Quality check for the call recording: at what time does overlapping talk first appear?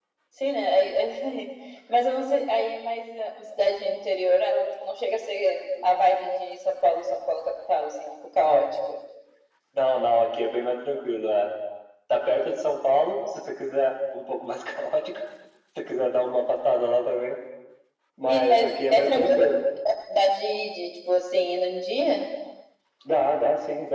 18.3 s

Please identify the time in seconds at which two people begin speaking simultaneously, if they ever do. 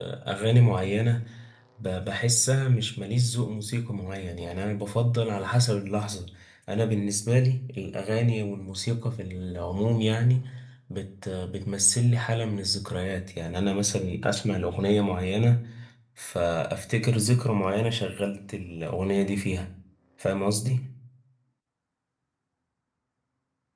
none

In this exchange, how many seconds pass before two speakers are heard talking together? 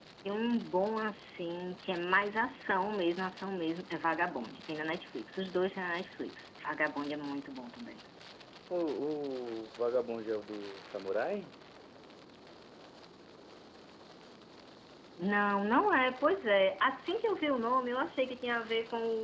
none

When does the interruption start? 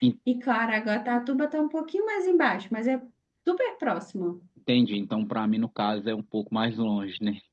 none

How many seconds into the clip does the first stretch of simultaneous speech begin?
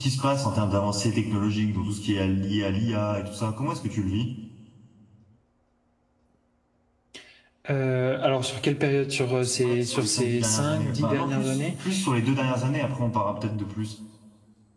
9.6 s

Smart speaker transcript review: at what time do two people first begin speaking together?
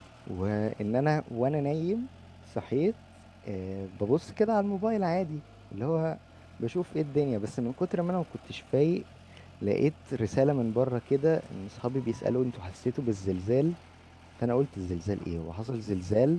none

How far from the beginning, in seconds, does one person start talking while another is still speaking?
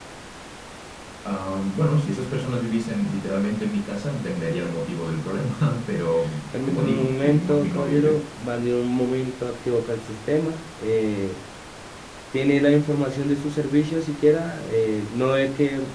6.5 s

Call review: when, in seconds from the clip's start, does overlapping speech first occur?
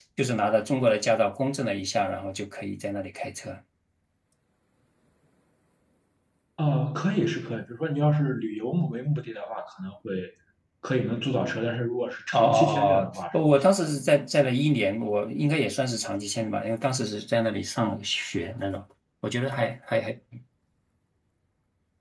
12.3 s

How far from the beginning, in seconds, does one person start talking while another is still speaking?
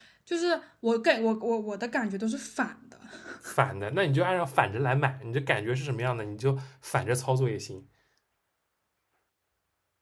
none

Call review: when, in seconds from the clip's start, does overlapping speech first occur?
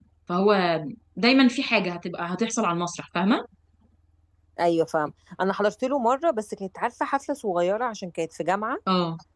none

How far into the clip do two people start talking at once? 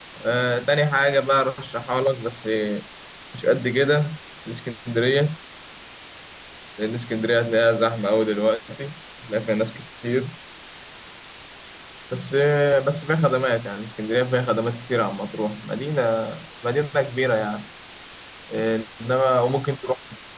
none

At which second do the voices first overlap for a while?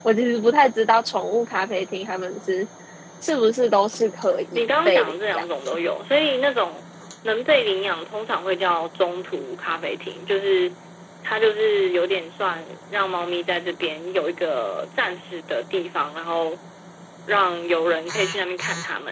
4.5 s

